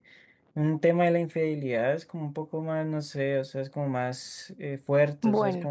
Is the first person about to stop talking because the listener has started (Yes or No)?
No